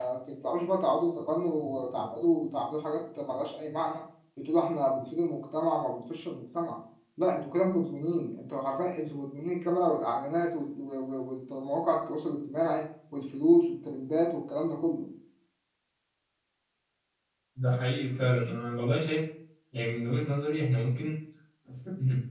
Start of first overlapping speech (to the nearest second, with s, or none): none